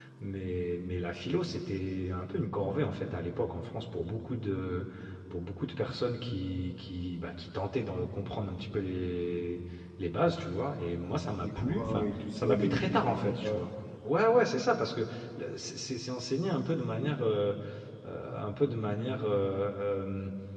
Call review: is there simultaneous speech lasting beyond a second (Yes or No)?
Yes